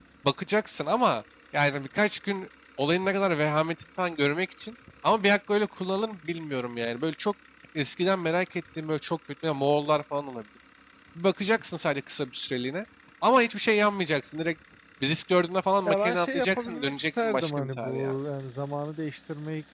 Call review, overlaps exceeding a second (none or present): present